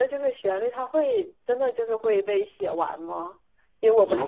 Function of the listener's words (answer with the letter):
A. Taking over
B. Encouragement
A